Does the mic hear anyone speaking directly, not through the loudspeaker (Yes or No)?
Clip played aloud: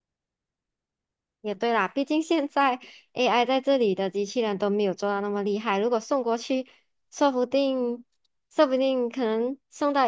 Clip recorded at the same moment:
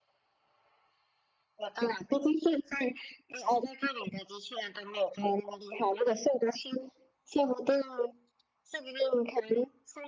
No